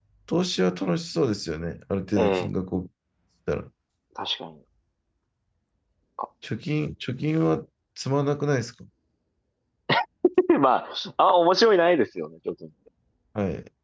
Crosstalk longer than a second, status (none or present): none